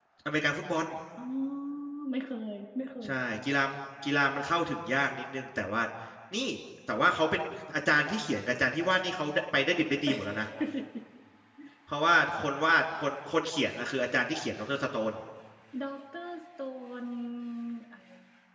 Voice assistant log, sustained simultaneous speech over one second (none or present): none